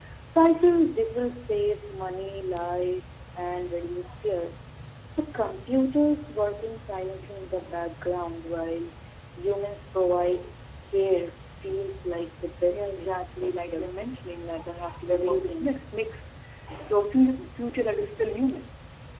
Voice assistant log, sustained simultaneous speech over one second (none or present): present